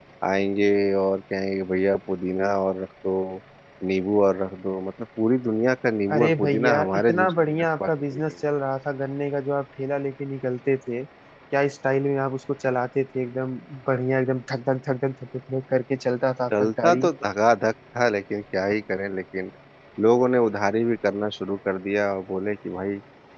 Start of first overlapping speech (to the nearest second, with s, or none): 6 s